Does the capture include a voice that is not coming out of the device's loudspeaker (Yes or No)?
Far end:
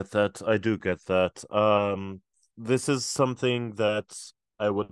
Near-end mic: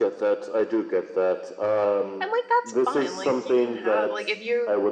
Yes